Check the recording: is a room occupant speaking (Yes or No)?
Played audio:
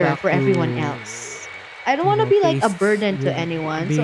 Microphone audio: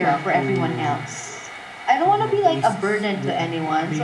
No